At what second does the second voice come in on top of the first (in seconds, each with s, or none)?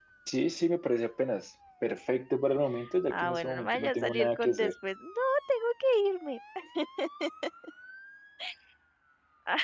3.1 s